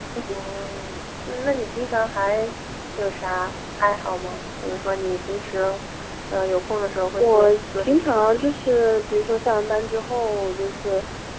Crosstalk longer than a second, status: present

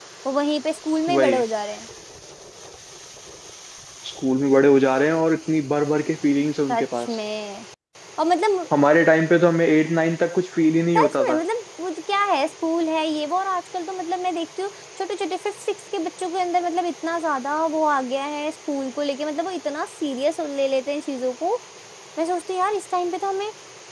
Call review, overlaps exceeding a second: none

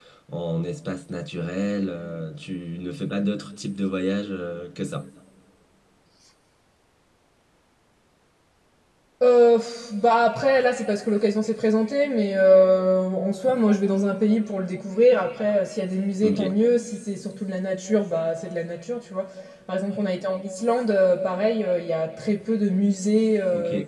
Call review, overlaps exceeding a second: none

